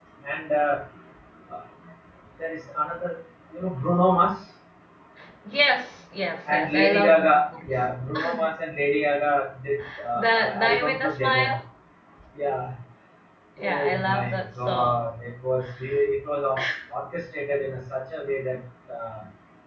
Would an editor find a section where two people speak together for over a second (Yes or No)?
Yes